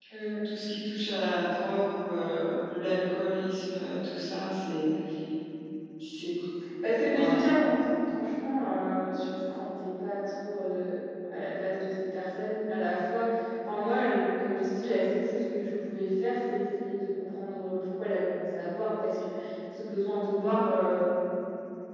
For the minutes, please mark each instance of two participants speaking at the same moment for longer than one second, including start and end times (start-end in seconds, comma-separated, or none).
none